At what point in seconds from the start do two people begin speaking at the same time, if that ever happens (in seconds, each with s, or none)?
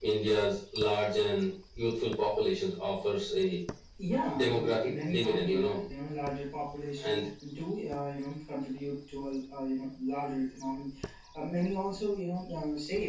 4.3 s